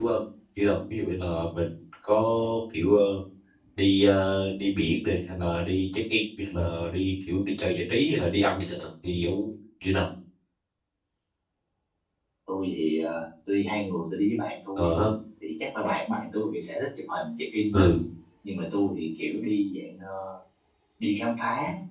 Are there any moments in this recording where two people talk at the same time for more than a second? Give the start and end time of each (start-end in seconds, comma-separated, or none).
none